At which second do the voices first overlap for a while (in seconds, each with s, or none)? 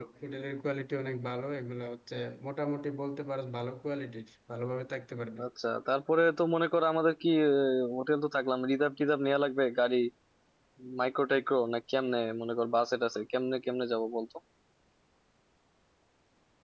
none